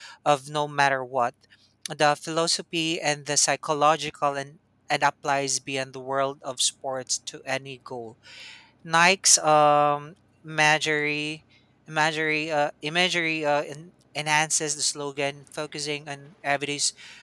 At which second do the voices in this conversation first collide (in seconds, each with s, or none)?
none